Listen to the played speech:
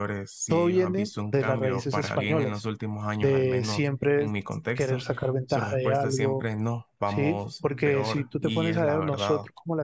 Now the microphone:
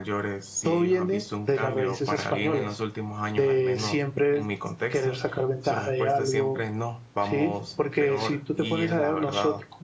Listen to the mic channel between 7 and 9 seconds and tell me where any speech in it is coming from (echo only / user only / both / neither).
echo only